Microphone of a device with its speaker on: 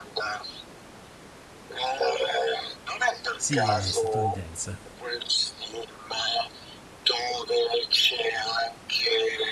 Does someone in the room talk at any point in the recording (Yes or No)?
Yes